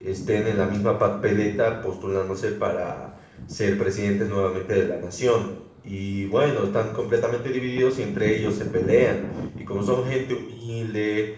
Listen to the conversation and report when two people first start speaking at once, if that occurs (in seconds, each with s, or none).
none